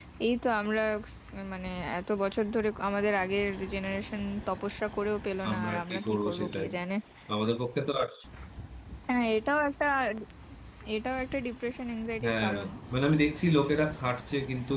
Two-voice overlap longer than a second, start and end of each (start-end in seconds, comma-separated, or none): 5.5-6.7